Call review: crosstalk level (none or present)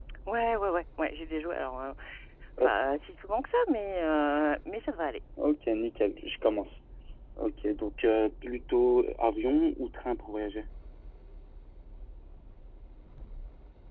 none